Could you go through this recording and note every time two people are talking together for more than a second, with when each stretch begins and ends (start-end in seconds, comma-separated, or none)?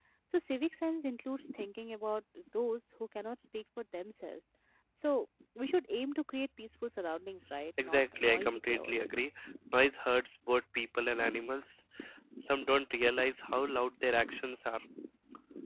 7.8-9.1